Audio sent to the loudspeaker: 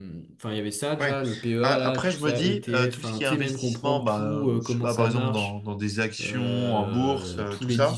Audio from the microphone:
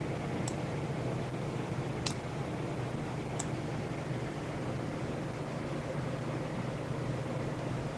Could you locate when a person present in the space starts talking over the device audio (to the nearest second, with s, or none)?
none